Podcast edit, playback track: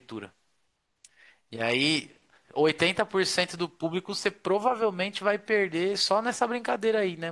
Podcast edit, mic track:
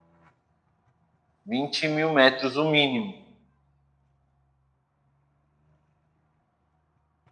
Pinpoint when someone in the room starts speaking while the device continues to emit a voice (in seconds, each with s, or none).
1.4 s